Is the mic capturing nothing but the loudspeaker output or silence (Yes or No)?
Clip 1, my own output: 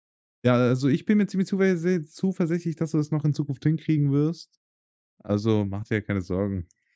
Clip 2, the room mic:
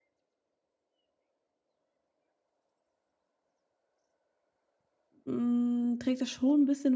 No